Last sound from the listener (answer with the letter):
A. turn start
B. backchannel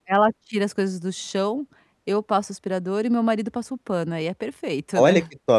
A